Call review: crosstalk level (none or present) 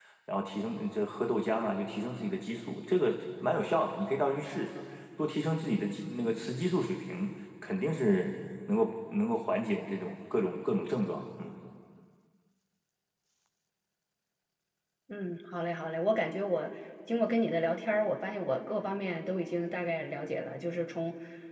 none